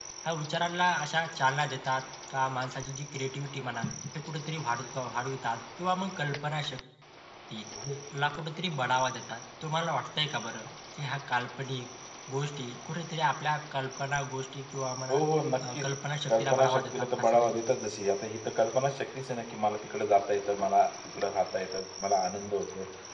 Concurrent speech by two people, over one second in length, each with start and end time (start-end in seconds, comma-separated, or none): 16.3-17.6